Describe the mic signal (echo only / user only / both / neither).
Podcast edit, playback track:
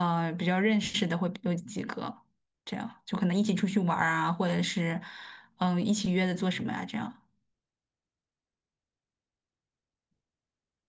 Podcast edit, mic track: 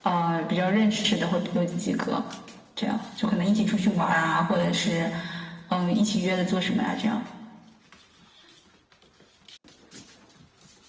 echo only